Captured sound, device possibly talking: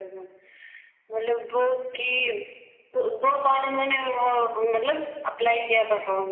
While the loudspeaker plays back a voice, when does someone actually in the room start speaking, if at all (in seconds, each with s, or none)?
none